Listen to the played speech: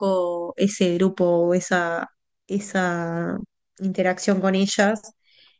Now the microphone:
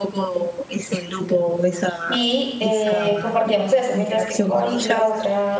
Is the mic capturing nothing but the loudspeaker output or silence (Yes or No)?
No